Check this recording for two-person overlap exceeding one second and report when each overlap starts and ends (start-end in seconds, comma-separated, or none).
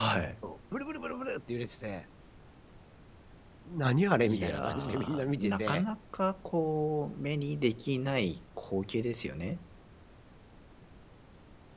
4.2-5.8